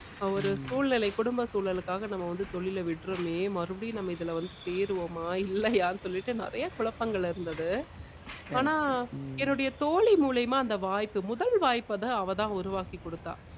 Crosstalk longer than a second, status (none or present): none